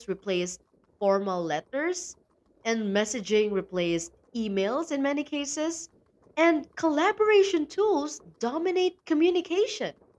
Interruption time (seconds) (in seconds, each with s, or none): none